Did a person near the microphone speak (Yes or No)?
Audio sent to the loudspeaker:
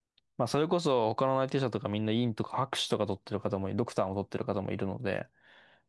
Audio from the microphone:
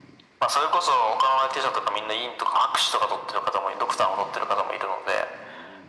No